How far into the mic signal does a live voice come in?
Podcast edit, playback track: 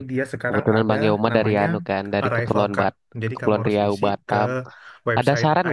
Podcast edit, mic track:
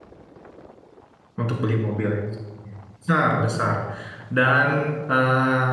1.4 s

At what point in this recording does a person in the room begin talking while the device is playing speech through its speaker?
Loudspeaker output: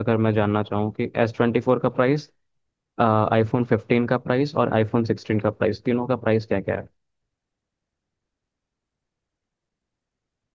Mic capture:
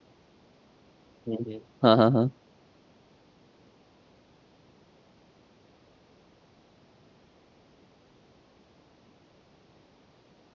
1.3 s

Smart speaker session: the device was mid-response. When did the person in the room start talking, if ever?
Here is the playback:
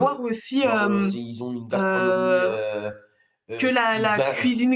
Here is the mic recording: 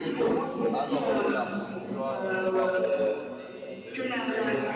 0.7 s

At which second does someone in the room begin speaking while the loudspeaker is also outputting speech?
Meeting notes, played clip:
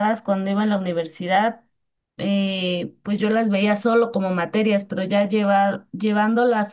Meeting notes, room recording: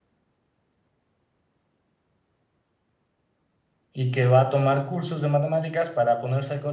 3.9 s

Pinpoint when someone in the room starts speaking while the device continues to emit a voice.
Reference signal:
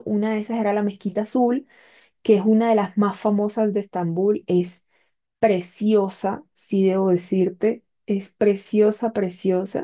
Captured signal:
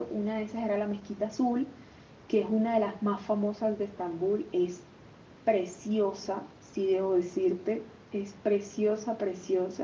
none

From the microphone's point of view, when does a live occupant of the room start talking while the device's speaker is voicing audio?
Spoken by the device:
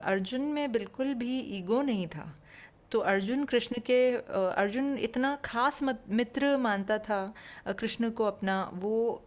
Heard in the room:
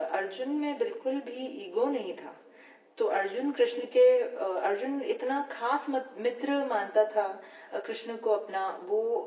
none

